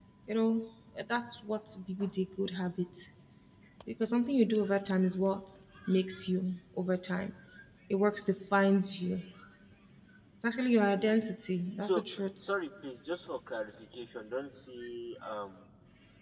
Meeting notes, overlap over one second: none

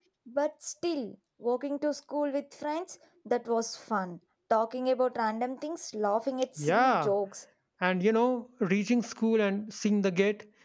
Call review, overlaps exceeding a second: none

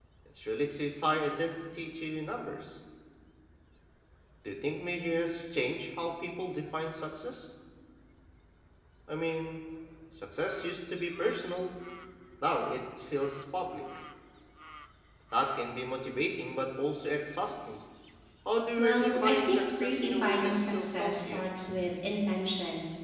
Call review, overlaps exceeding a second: present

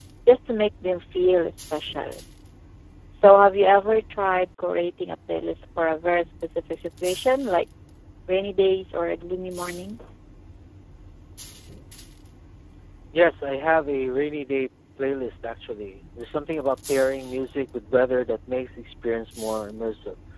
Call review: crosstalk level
none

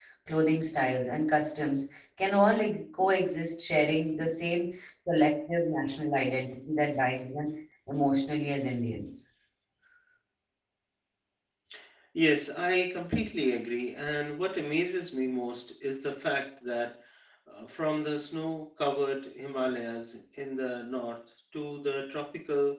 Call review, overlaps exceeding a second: none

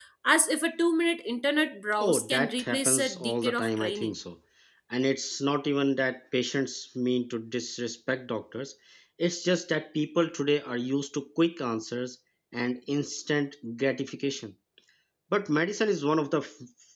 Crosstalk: present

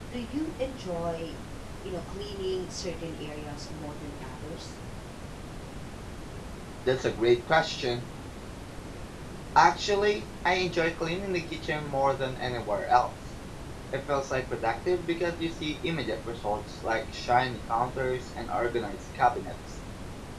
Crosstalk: none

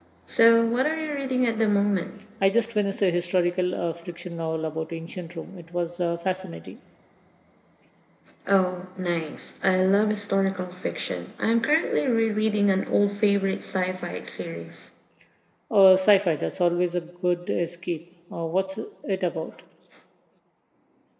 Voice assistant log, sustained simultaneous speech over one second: none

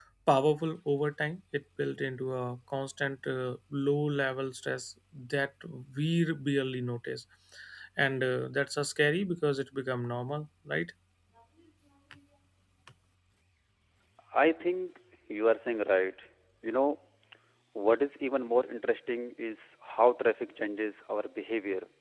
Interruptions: none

